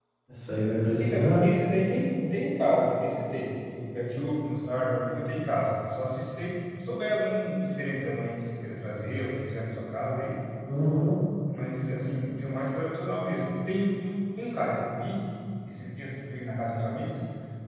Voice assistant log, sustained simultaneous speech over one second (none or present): none